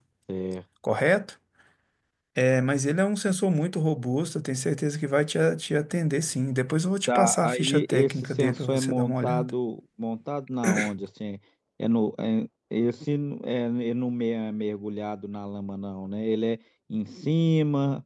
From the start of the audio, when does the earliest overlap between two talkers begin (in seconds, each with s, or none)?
7.1 s